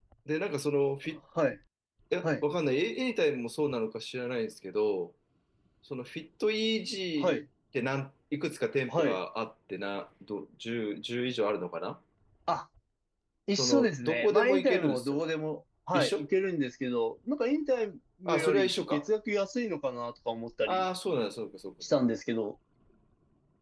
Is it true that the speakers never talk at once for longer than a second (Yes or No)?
No